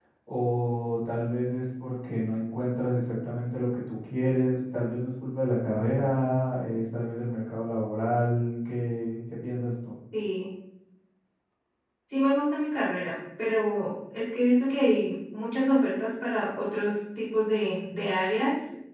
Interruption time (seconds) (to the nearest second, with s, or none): none